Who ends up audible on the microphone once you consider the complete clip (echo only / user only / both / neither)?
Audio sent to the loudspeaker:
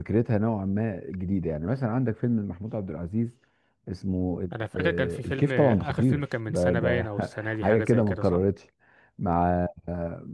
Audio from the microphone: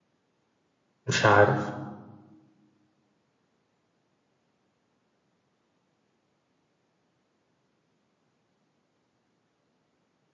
user only